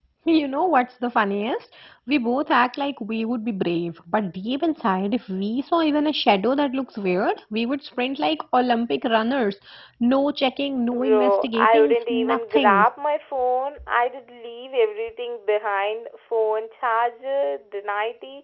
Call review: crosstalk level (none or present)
present